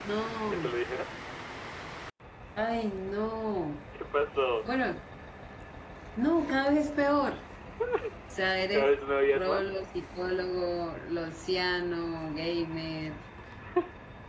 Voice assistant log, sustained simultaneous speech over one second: none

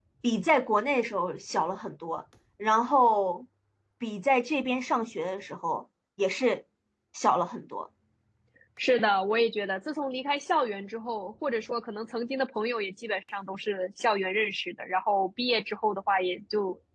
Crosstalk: none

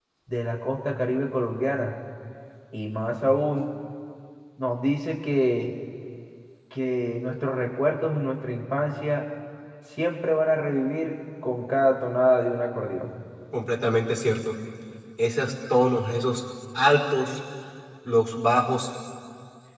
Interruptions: none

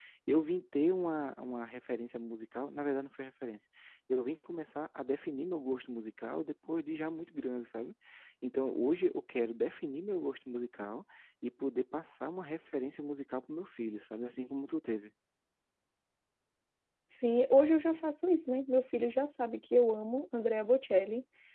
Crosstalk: none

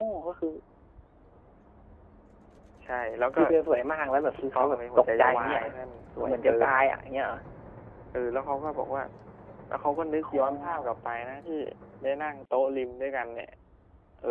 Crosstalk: present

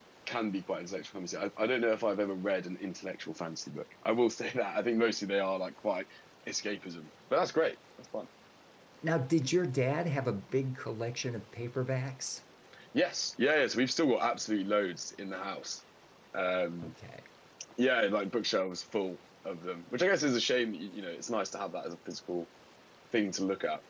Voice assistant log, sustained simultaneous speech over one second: none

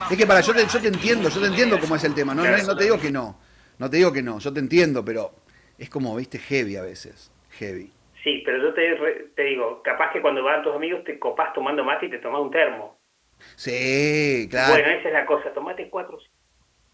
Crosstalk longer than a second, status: none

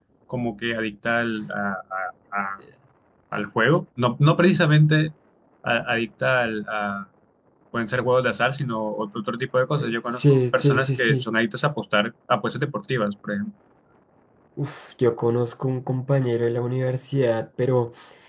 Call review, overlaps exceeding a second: present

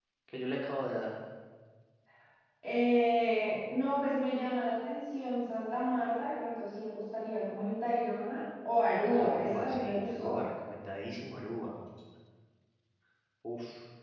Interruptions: present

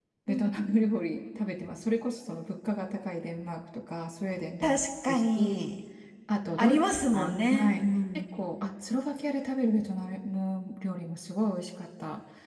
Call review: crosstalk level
present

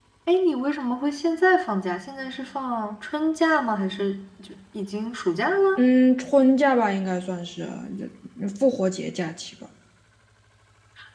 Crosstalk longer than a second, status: none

